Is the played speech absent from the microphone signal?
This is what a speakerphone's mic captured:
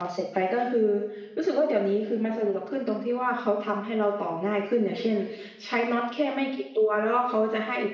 Yes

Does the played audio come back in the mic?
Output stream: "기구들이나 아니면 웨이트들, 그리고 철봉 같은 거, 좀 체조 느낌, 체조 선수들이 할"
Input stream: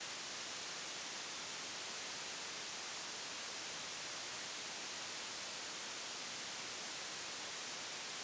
No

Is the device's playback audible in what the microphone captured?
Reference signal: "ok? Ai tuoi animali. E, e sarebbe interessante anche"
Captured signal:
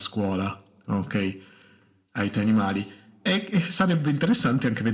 Yes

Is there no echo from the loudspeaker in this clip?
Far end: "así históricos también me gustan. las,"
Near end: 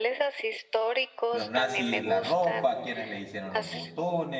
No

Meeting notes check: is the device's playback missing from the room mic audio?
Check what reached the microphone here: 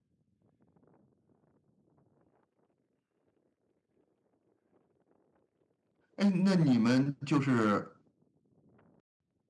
Yes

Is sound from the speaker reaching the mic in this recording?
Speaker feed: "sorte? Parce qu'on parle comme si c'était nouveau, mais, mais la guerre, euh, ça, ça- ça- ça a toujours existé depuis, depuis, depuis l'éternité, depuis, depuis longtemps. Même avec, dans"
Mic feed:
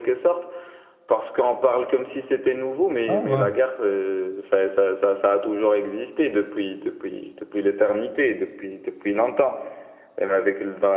Yes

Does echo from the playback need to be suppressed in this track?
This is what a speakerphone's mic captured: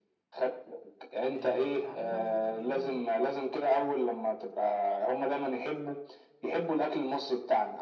Yes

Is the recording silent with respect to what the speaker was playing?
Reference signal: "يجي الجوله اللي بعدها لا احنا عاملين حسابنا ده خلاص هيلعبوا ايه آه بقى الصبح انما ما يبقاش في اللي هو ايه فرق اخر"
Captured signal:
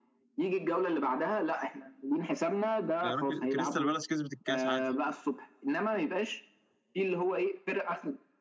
No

